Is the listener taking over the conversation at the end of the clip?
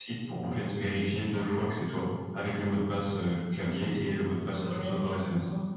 Yes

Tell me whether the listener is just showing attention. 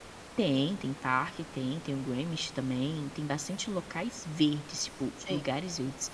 Yes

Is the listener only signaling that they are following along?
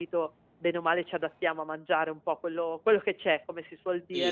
No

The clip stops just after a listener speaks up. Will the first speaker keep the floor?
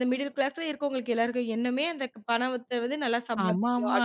No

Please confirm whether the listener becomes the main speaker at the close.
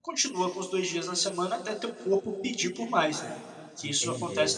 Yes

